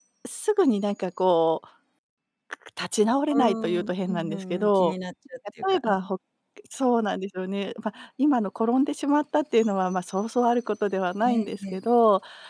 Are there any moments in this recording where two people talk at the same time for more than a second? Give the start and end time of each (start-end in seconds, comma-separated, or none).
3.3-4.9